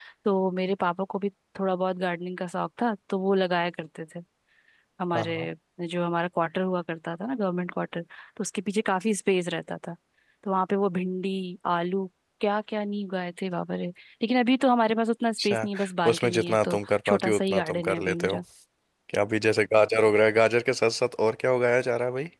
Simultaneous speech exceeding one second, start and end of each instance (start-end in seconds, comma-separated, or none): 16.1-18.4